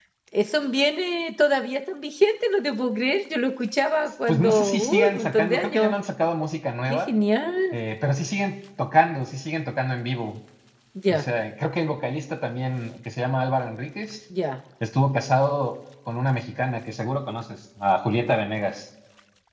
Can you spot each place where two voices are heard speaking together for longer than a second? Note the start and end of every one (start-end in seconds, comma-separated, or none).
4.3-5.9